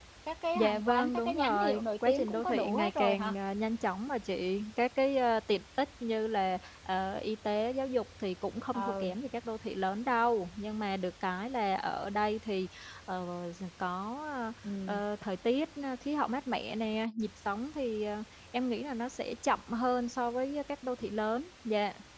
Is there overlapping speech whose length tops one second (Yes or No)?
Yes